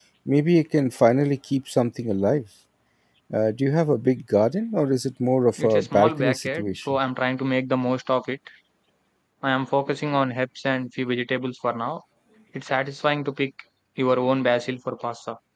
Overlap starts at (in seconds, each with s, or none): 5.6 s